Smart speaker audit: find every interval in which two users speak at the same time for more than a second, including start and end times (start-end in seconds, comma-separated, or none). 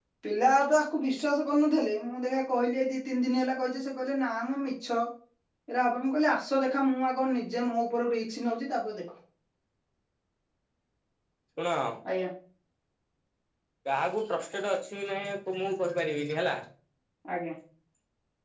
none